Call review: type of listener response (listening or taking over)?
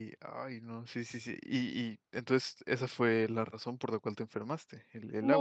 taking over